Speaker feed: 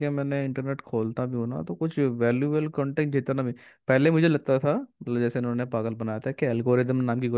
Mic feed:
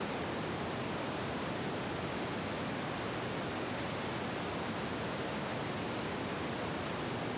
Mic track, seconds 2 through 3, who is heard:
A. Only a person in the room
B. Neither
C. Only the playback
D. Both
B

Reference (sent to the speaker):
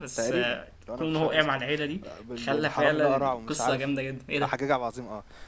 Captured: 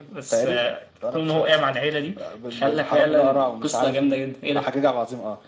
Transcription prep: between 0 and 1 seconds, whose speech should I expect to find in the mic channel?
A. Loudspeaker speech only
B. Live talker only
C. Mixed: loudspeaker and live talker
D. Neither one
A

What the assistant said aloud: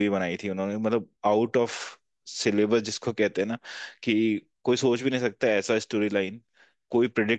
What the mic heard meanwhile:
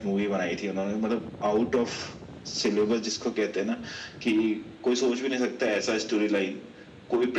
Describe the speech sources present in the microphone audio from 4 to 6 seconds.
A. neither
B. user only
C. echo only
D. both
C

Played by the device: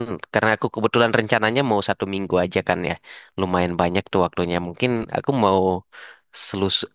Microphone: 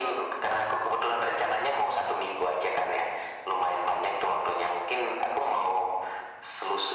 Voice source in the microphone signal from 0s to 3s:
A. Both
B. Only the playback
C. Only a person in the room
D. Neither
B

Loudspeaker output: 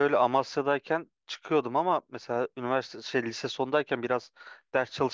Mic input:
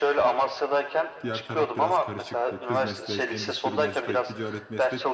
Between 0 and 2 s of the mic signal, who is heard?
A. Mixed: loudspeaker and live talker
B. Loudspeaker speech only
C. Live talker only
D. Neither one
A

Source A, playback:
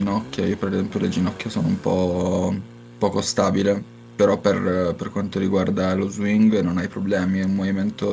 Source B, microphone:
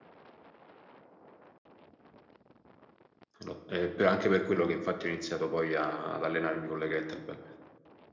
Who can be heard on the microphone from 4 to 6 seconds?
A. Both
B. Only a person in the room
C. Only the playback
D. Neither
B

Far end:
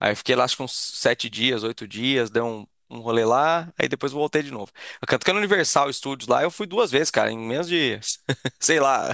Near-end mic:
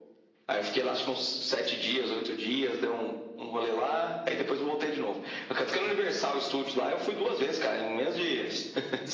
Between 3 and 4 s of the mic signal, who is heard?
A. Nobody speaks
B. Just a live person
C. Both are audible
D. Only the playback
D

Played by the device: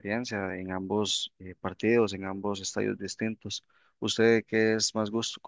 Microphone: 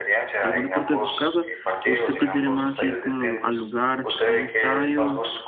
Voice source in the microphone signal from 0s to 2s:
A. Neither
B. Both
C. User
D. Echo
B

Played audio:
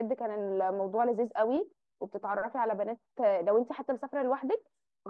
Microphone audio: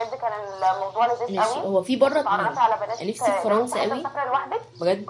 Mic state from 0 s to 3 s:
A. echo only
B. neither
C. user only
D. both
D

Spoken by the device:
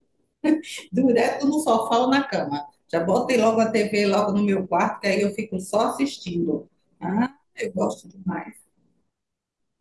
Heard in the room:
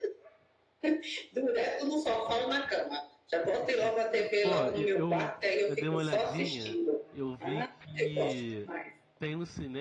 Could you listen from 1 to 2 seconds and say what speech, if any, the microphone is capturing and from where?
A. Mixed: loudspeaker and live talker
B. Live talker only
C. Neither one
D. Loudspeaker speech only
D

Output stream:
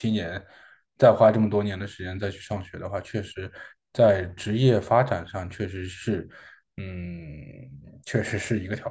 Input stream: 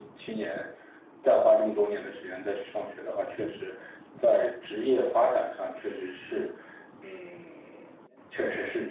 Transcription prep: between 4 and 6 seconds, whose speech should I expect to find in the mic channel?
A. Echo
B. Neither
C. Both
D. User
A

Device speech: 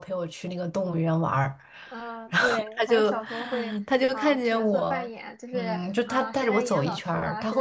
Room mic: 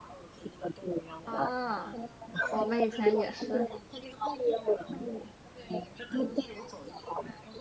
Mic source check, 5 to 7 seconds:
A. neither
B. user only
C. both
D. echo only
D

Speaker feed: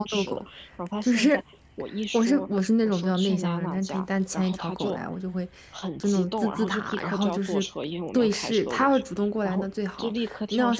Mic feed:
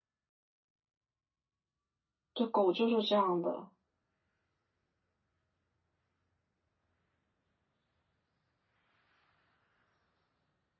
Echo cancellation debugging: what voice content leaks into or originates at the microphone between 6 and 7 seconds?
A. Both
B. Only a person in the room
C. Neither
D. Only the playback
C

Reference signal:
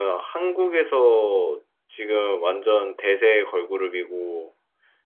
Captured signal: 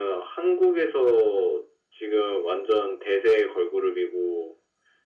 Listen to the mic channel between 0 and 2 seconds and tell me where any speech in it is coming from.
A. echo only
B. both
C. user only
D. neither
A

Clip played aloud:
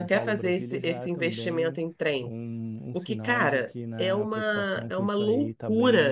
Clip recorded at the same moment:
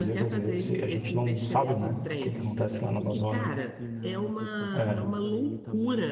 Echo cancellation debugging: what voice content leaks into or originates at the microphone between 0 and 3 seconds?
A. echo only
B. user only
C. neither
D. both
D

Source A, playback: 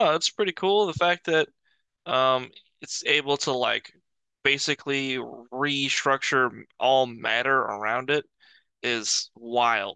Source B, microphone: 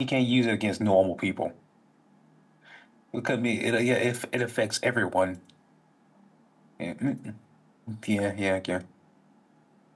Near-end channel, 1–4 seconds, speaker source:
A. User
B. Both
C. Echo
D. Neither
A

